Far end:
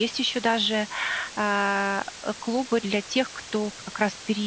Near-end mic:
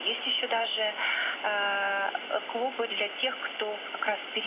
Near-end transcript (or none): none